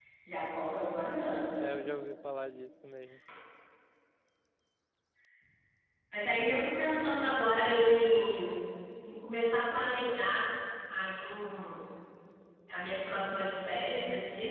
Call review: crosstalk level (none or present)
none